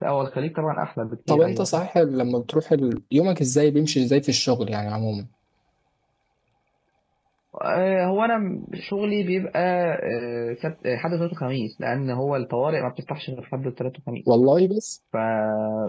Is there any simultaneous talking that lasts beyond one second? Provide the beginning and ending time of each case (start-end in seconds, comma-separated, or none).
none